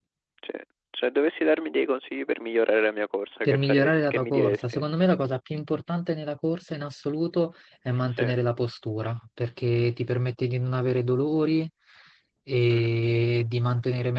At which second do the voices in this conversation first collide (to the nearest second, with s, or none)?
3 s